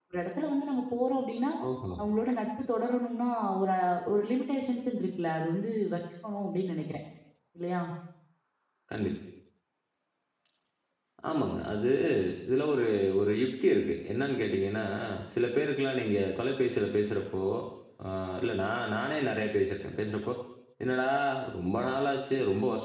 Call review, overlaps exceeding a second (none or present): none